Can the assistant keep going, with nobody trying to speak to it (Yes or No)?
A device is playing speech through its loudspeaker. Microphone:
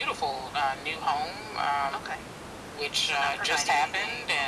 Yes